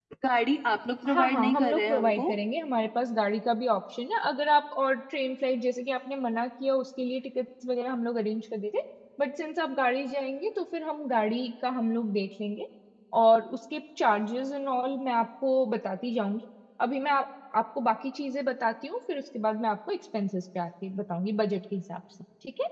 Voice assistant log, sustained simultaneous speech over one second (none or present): present